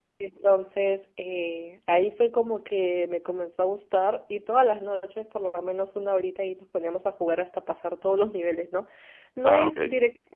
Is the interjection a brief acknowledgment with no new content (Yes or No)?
Yes